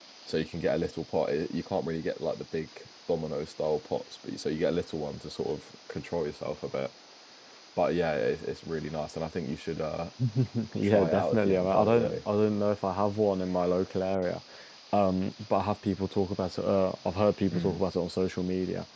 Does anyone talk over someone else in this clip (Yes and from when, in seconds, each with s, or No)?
Yes, from 10.8 s